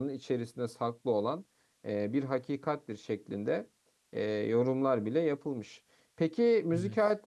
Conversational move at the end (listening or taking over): listening